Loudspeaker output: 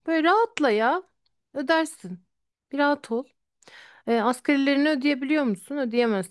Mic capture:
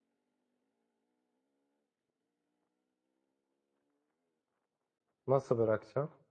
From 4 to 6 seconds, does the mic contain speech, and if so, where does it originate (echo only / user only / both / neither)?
user only